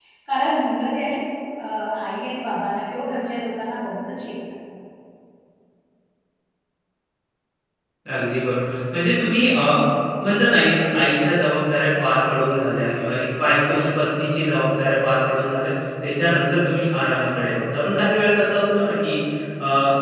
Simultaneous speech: No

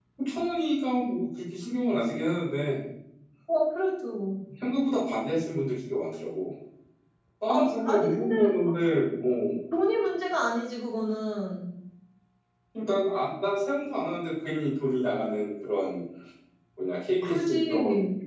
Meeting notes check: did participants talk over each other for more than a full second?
Yes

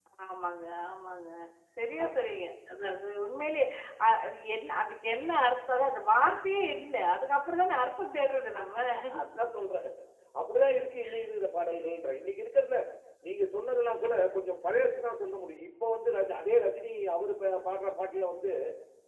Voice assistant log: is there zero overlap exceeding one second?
Yes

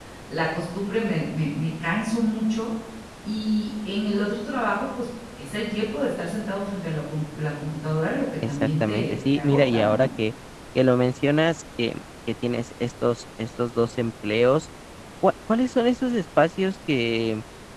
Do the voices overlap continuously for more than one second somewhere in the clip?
Yes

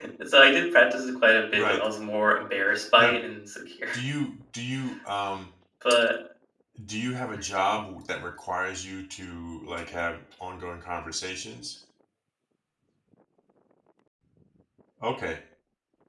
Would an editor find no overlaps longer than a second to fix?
Yes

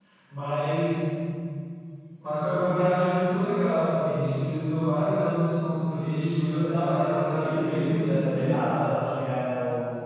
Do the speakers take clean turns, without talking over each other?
No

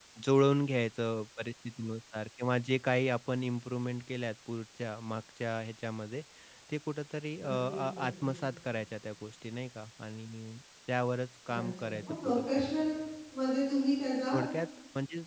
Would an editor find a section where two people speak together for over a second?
Yes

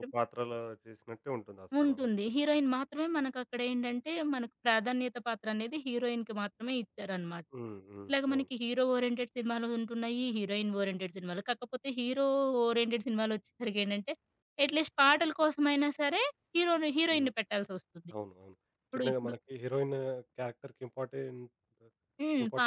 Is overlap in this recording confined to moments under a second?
Yes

